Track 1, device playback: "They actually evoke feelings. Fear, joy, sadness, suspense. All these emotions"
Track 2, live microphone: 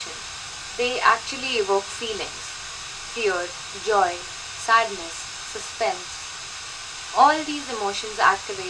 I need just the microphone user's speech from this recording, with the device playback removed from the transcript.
none

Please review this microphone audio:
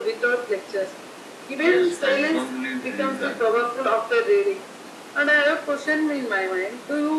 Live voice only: Yes, I strongly believe that

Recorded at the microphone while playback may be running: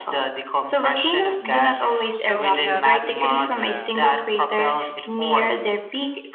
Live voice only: So we have here the

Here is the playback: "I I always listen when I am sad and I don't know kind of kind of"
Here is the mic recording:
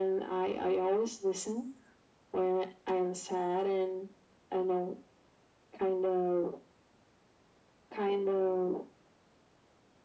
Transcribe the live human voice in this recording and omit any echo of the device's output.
none

